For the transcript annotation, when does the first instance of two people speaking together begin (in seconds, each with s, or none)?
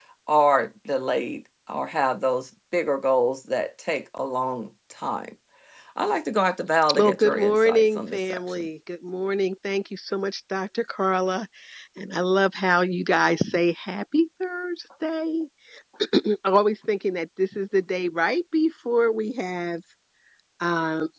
6.9 s